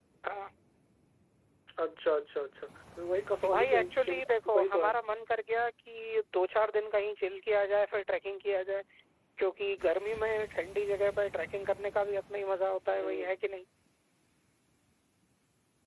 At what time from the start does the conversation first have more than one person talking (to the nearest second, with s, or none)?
4 s